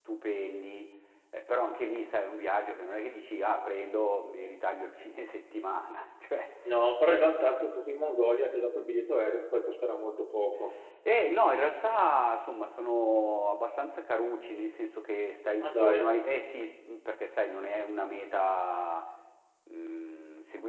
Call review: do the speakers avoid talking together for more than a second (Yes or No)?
Yes